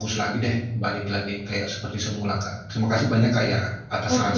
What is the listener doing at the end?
taking over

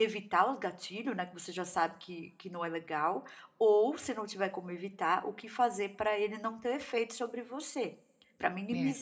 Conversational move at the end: listening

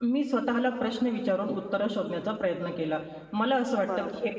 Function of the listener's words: listening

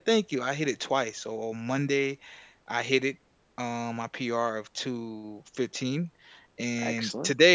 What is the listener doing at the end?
listening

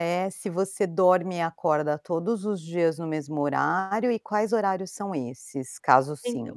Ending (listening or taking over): taking over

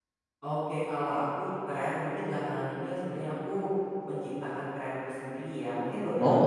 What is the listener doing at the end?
listening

